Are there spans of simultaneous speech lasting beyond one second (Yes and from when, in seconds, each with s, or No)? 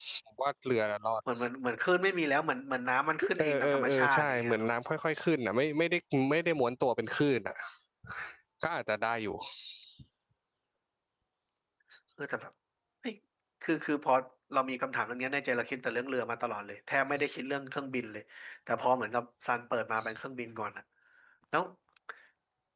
Yes, from 3.2 s